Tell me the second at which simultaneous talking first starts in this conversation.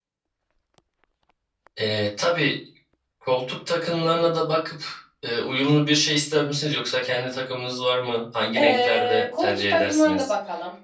9 s

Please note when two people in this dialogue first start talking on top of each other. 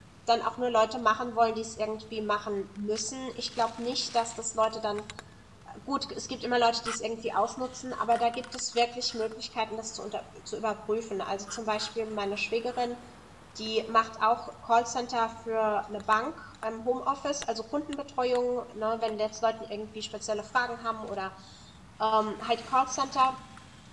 none

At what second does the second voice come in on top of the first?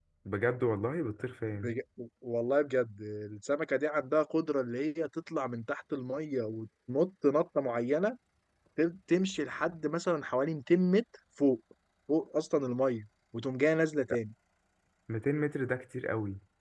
none

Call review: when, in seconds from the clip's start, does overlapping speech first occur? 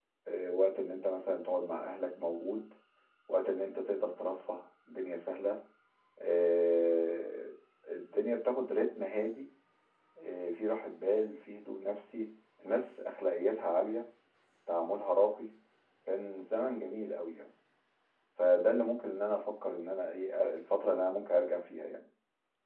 none

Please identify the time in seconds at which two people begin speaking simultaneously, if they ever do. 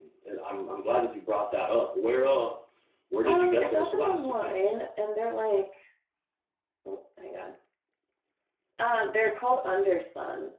3 s

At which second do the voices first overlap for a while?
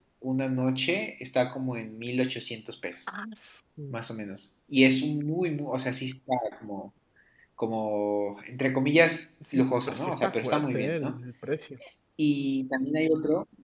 9 s

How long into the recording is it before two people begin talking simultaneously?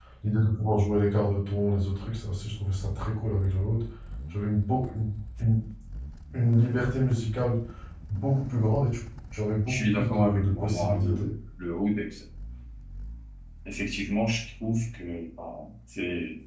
10 s

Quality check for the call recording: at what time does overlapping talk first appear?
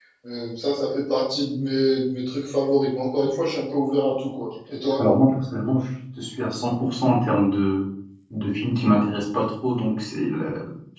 none

